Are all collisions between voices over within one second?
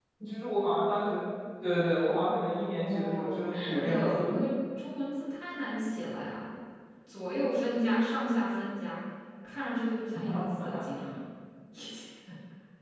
No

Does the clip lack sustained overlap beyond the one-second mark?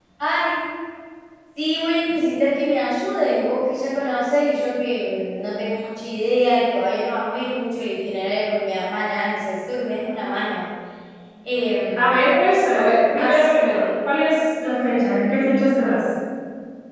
Yes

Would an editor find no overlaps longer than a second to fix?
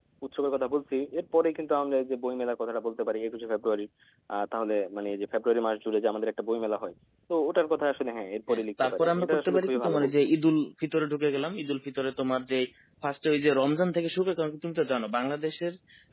No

